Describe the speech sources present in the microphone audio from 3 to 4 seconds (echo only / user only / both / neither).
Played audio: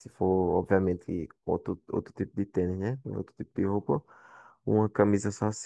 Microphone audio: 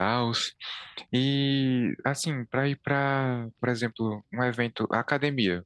user only